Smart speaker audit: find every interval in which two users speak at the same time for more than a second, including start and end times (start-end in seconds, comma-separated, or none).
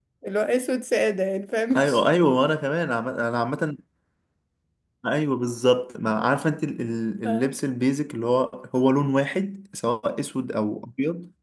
none